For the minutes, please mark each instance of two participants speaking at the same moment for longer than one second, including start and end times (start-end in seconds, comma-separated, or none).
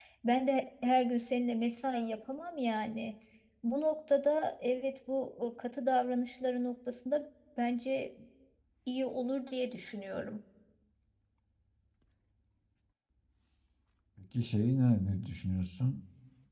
none